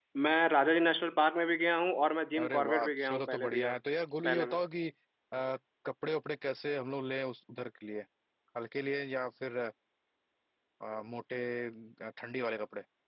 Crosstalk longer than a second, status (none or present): present